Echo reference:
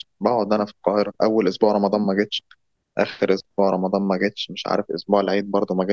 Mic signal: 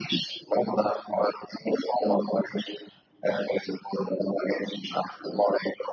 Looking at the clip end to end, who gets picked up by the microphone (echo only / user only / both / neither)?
echo only